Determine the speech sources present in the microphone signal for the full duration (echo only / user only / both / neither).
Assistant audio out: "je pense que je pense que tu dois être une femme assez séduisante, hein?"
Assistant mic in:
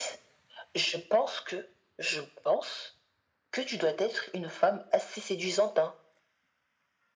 echo only